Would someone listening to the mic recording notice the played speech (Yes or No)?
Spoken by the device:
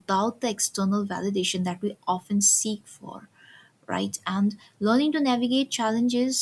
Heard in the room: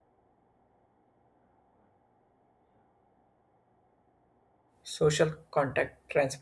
No